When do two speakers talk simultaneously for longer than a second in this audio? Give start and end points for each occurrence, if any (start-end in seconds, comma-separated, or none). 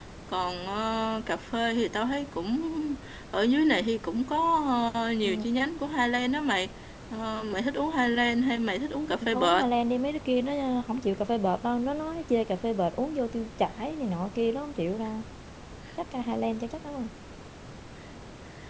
none